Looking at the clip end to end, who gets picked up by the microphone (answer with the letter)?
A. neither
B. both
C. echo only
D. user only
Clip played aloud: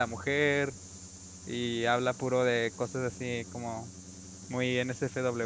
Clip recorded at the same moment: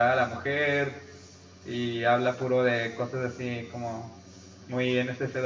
C